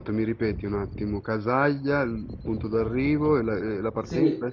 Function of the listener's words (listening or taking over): taking over